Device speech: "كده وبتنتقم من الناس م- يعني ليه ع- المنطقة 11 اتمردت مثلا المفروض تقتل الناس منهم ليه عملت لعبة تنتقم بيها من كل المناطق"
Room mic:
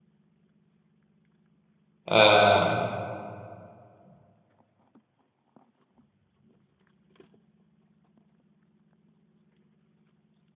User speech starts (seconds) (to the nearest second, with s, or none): 2 s